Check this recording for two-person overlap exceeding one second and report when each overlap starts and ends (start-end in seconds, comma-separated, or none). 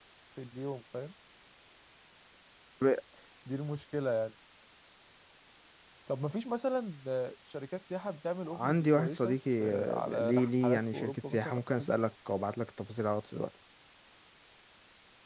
8.5-11.9